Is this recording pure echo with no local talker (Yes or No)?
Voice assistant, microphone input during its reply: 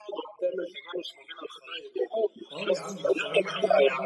No